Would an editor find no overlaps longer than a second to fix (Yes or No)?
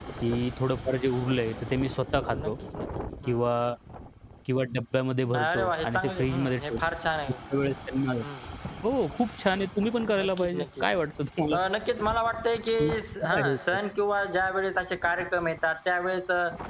No